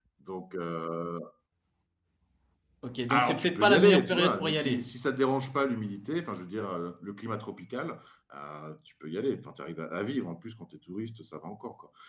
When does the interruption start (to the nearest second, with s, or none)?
3 s